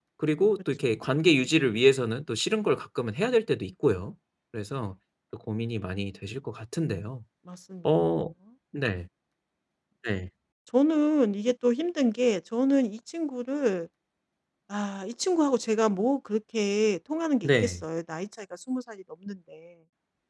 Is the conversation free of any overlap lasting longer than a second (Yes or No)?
Yes